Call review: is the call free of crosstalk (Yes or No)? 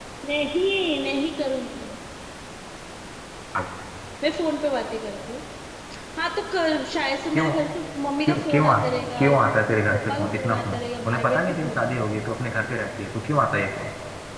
No